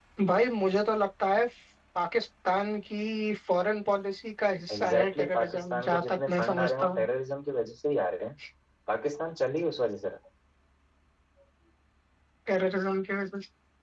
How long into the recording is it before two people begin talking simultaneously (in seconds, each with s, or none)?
4.7 s